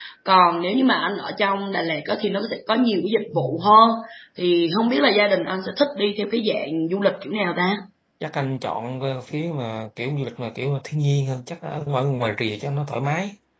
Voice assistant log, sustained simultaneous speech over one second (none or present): none